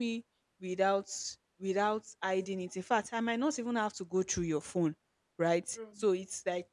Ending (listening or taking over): listening